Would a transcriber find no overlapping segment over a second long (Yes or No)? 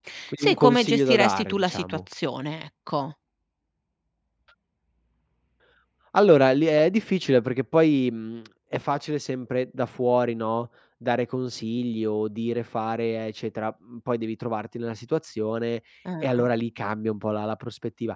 No